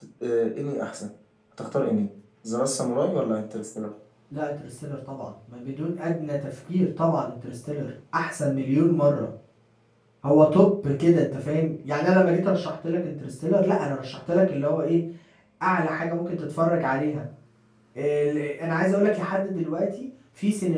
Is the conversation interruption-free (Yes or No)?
Yes